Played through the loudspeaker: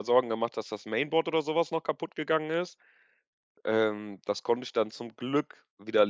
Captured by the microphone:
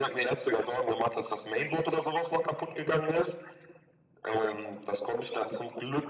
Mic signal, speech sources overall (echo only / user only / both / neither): echo only